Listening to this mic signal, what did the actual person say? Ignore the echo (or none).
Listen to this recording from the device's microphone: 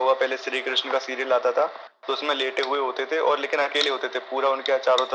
none